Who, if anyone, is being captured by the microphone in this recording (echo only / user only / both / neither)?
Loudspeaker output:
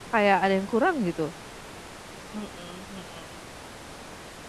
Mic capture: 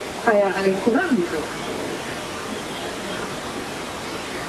echo only